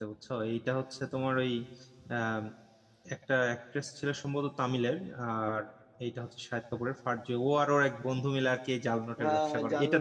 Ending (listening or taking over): taking over